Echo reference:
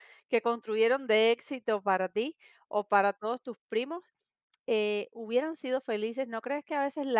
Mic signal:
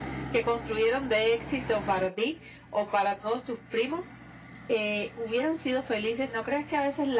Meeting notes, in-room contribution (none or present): none